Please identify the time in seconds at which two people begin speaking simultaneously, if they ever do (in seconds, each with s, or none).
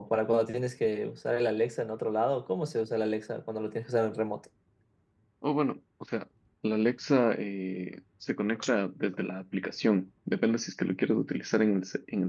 none